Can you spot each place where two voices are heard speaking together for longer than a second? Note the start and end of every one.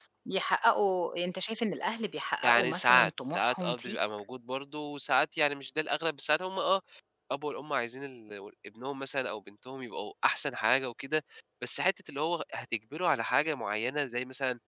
2.4-4.0

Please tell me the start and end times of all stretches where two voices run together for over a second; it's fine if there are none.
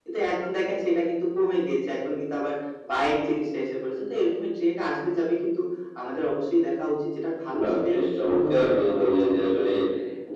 8.3-9.7

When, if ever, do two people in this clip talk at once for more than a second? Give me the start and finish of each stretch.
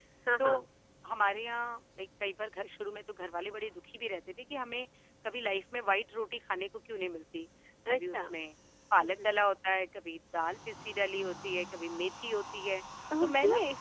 none

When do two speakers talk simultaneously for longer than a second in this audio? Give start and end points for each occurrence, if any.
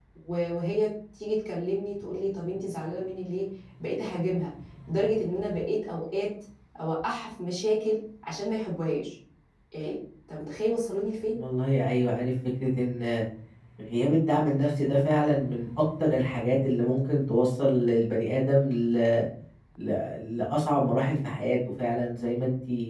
none

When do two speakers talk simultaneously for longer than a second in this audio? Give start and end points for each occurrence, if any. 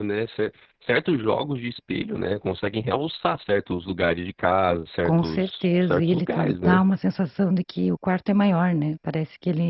5.0-6.8

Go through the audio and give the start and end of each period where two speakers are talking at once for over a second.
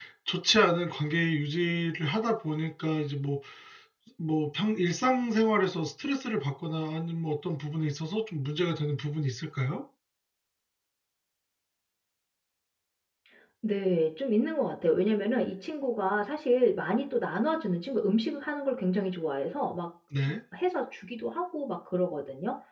none

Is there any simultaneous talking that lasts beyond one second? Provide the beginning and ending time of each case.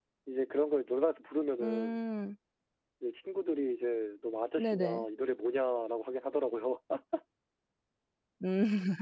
none

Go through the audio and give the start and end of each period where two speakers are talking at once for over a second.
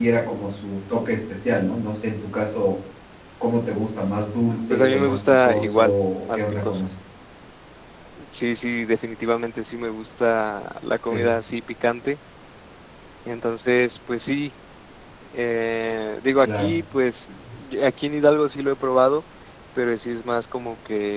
4.7-6.9

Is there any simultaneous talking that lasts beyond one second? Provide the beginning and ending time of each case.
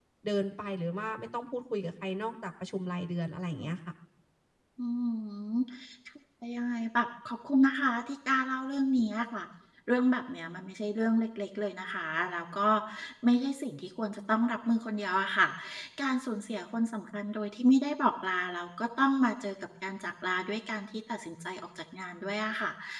none

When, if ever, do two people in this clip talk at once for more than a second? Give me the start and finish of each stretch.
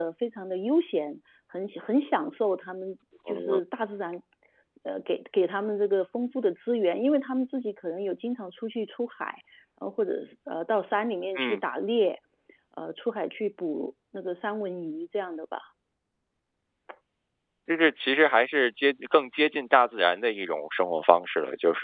none

